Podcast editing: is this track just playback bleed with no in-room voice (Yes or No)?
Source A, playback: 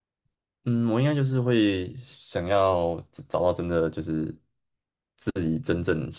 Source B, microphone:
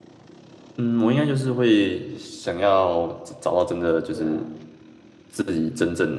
No